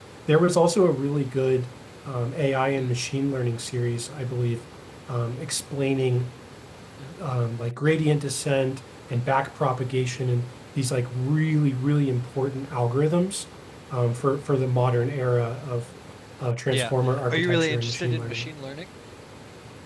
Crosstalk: present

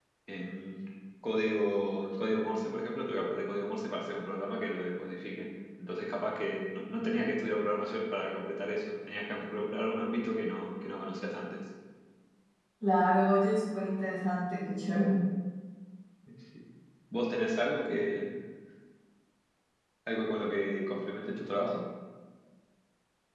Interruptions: none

